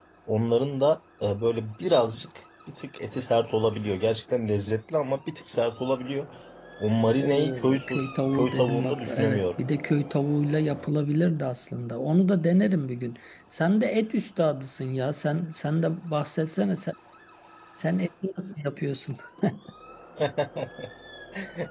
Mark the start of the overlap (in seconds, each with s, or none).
7.2 s